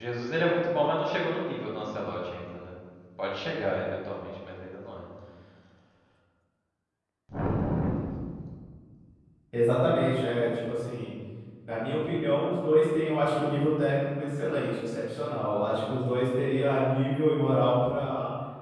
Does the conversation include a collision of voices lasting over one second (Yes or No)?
No